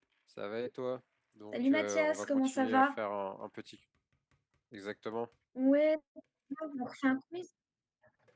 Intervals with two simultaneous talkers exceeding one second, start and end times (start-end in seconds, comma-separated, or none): 1.5-3.0